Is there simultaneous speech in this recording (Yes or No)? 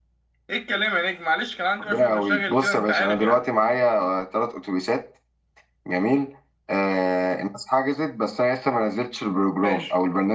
Yes